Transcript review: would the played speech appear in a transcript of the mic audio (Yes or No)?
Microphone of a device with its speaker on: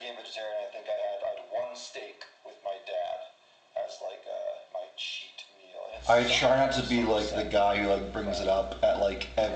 Yes